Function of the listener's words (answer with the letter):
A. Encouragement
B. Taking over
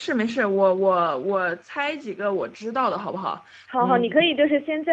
B